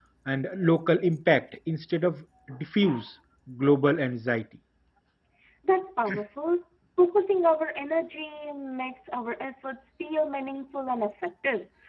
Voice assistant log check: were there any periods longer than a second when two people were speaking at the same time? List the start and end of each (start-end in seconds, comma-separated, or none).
none